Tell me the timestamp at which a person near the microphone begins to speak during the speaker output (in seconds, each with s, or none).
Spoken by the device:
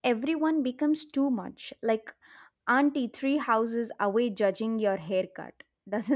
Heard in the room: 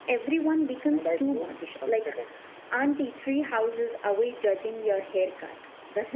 0.9 s